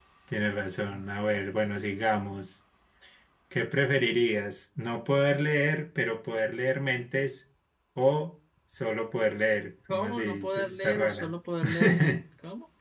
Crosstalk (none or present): present